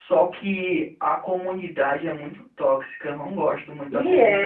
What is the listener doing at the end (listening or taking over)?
taking over